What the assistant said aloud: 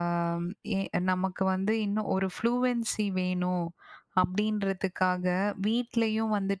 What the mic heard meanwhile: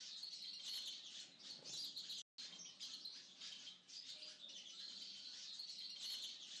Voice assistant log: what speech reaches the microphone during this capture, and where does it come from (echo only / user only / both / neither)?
neither